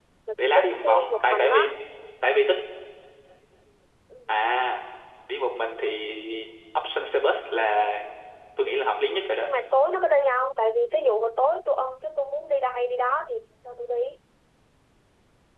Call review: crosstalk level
present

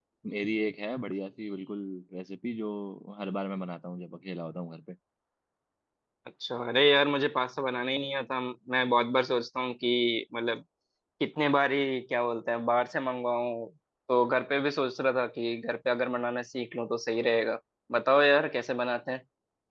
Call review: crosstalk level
none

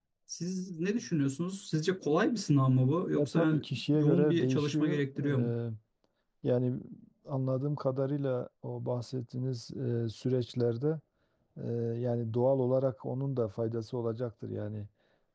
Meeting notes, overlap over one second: present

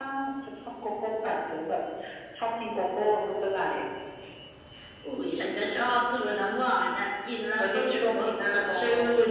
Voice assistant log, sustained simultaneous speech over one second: present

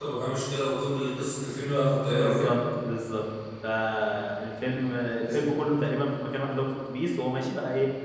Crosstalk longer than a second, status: none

